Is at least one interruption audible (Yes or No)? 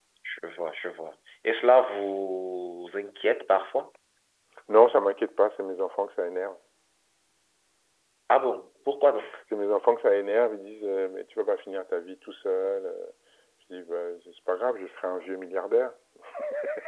No